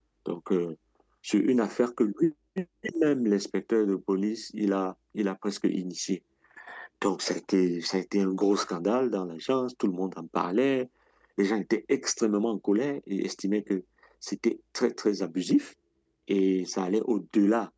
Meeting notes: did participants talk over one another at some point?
No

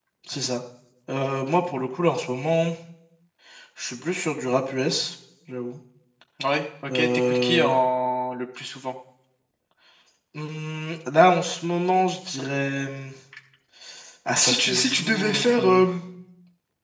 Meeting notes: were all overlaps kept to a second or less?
No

